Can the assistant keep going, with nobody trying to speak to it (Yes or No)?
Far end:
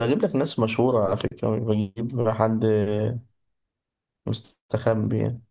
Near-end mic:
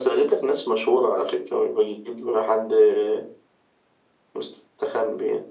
Yes